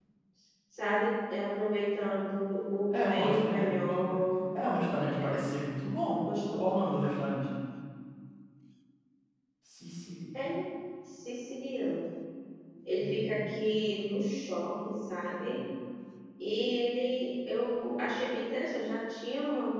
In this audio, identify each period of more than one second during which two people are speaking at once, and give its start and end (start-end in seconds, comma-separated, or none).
2.9-4.2